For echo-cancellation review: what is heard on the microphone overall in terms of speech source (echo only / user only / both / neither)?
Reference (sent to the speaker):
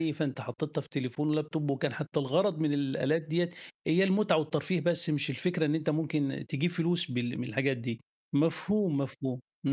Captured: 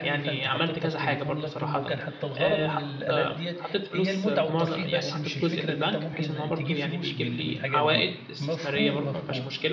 both